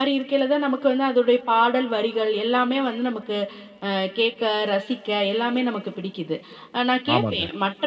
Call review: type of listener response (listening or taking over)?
listening